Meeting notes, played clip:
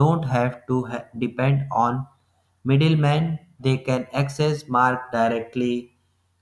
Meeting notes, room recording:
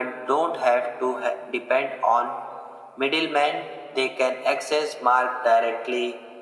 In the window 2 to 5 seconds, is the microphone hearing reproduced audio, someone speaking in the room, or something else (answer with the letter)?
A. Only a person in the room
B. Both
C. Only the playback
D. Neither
C